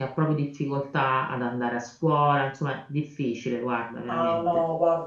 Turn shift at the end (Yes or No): Yes